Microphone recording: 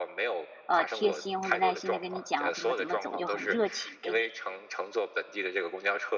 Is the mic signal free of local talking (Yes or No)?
No